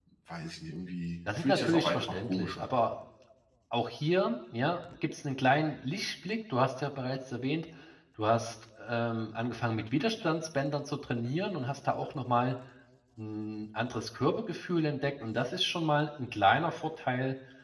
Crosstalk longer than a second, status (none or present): present